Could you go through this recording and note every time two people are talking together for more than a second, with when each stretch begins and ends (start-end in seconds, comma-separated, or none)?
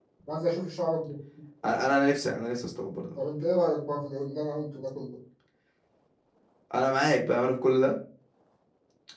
none